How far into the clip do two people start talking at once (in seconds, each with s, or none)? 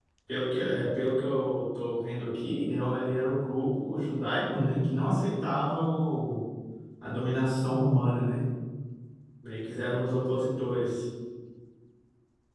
none